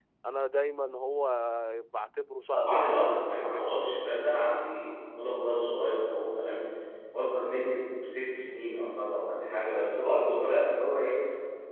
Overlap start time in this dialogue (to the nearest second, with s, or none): 3 s